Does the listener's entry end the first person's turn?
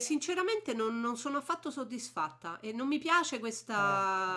No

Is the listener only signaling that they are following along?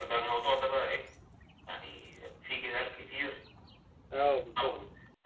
Yes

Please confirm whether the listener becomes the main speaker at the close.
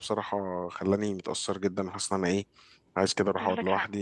No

